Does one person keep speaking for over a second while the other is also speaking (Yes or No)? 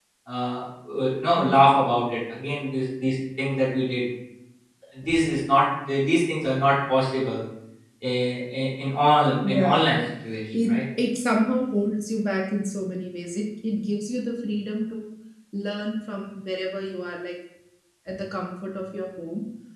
No